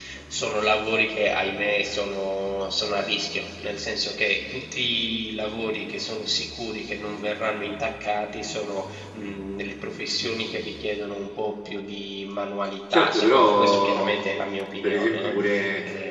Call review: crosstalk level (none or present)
present